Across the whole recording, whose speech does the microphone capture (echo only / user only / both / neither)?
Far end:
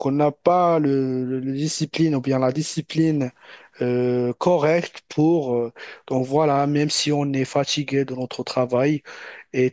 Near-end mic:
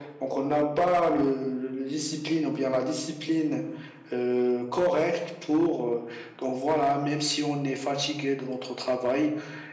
echo only